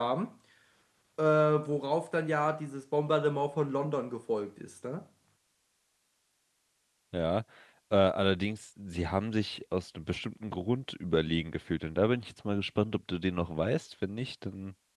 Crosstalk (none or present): none